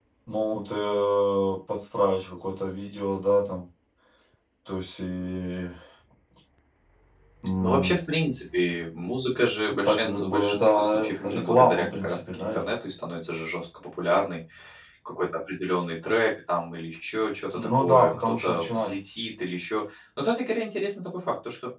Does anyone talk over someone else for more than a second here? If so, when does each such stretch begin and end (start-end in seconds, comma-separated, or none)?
9.8-12.7, 17.6-18.9